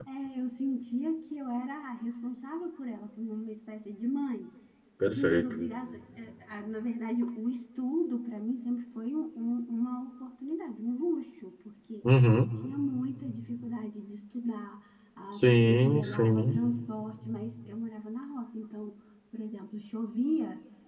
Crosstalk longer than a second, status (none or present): present